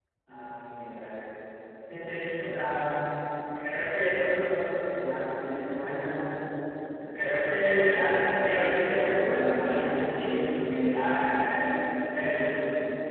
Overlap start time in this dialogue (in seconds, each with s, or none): 8.8 s